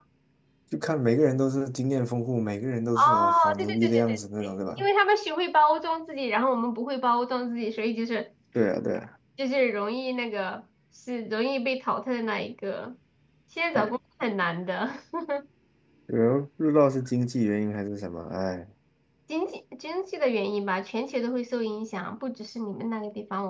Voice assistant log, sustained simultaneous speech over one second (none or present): present